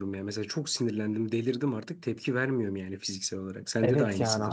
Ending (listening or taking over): taking over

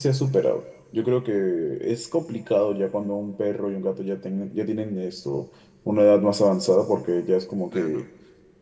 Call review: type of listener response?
listening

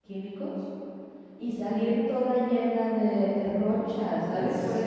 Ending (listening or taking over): listening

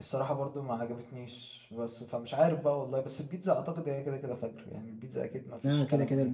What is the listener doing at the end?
taking over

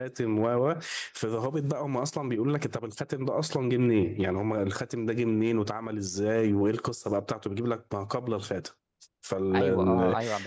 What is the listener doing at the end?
taking over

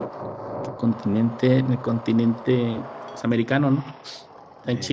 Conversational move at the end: listening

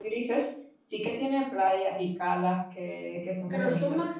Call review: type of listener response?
taking over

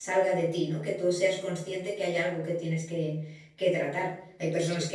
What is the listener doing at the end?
listening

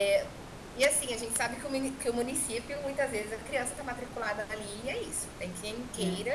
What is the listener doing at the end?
listening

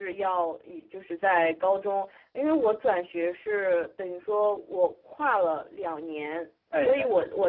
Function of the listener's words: listening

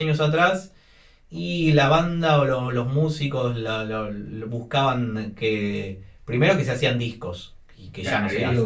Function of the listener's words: taking over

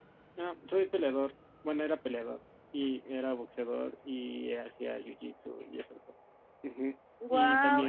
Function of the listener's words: listening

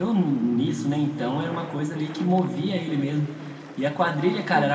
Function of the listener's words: listening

